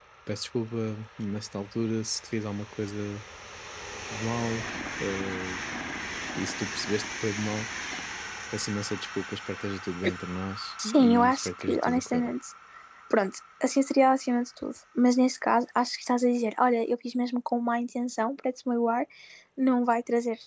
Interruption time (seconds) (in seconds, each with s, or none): 10.8 s